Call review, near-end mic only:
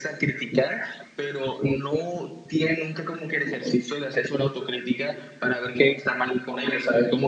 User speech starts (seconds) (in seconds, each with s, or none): none